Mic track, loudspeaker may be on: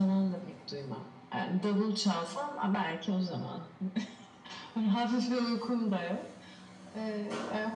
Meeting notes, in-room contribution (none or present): none